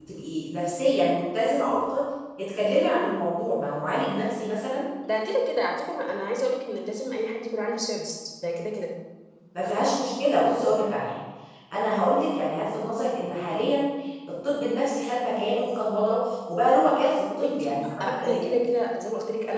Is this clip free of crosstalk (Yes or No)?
No